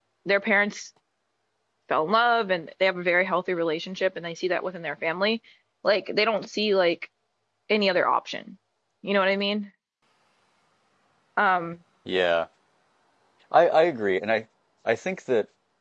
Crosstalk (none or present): none